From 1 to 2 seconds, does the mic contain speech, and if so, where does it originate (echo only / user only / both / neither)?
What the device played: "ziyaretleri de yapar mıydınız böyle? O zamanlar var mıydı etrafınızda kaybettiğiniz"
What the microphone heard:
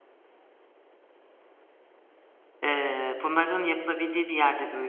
neither